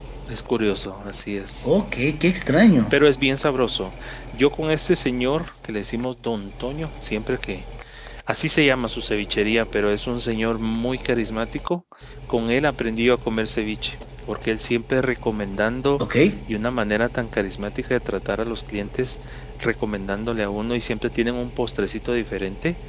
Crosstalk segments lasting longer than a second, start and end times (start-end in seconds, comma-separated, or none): none